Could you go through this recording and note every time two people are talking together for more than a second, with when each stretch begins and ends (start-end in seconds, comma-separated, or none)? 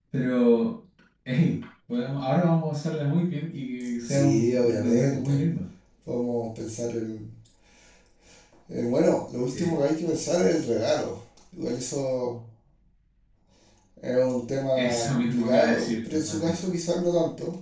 4.0-5.4, 14.8-16.6